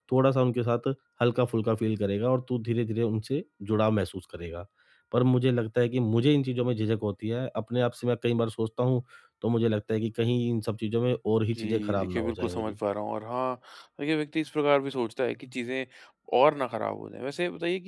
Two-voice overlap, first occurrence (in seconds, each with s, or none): 11.5 s